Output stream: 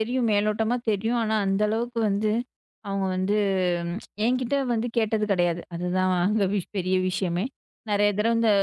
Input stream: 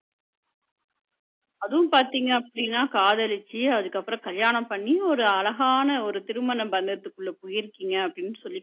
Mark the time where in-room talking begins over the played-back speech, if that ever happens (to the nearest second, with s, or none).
2 s